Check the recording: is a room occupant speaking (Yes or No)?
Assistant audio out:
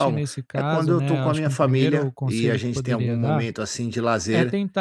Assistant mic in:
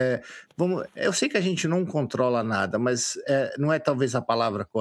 Yes